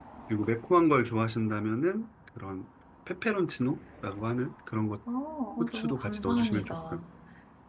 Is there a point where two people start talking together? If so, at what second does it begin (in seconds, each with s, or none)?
5.6 s